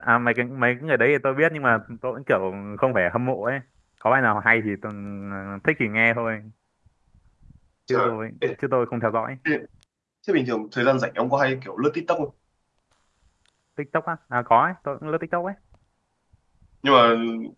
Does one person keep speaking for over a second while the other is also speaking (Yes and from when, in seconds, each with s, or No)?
No